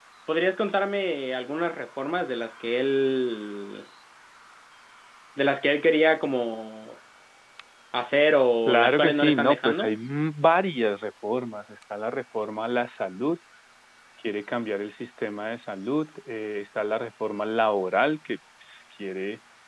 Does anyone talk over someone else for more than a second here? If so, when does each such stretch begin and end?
8.7-9.9

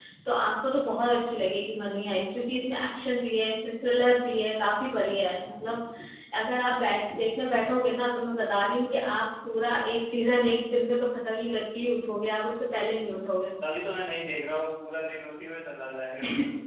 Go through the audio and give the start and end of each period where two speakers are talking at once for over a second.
none

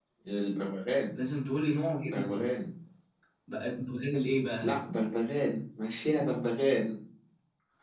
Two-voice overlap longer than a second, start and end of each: none

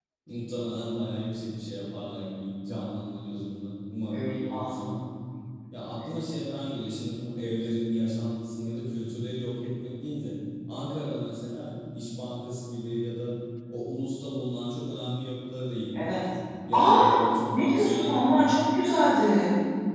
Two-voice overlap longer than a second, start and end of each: 16.7-18.6

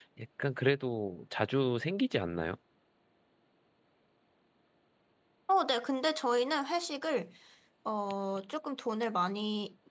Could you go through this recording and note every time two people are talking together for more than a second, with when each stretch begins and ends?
none

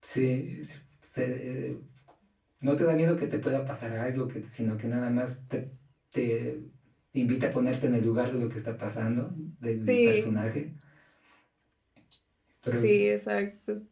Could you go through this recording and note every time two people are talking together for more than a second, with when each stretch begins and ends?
none

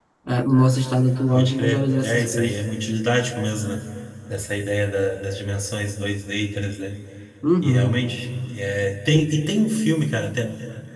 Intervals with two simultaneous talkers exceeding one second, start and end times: 1.3-2.5

